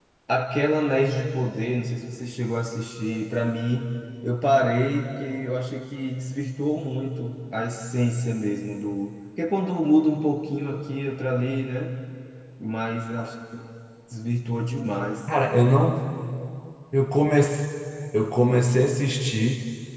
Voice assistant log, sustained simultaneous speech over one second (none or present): none